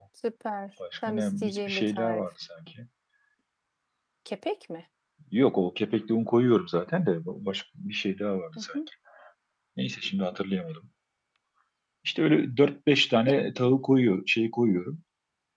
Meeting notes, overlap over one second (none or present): present